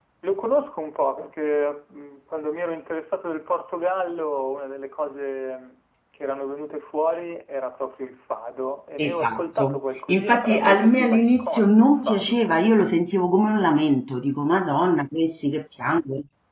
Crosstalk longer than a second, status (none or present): present